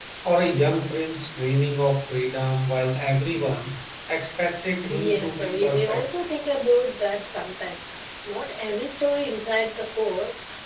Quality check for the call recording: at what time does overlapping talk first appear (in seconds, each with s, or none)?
4.8 s